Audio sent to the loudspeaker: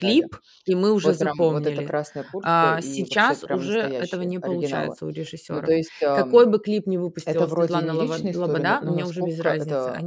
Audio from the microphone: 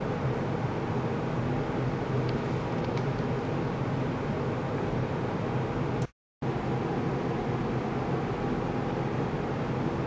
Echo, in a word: none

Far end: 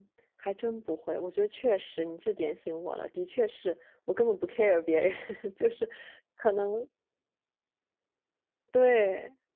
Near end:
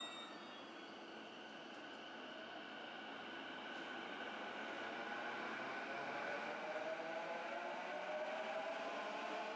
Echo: none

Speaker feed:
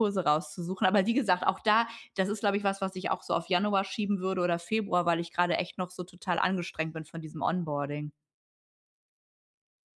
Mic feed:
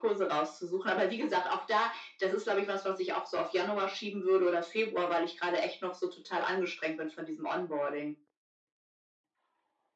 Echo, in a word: present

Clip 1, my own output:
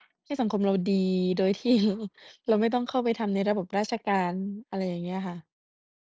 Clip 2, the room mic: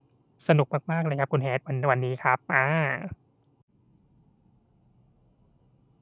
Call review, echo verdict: none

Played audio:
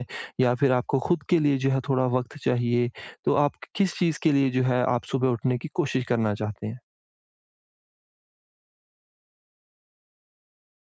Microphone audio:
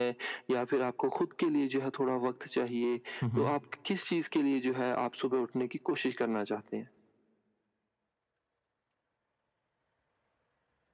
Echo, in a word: present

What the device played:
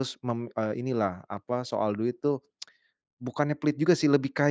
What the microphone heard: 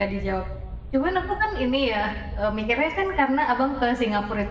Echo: none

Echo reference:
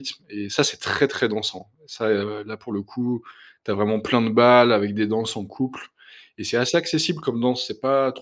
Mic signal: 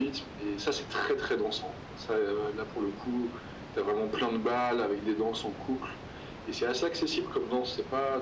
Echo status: present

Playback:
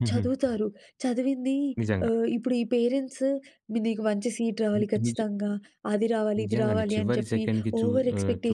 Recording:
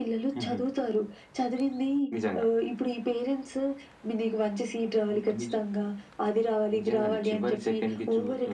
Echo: present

